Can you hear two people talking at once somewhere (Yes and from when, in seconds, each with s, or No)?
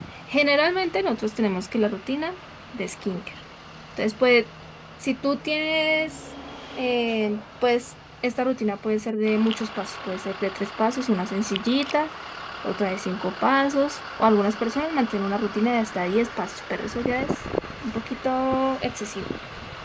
No